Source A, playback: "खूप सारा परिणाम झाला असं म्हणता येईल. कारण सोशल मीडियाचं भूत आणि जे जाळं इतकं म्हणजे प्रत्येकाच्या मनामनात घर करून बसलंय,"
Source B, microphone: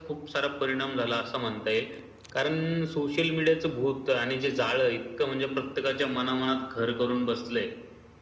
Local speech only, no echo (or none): none